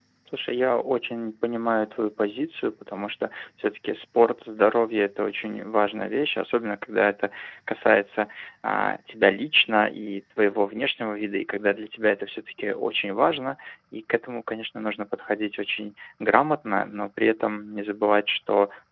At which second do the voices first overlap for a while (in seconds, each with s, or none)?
none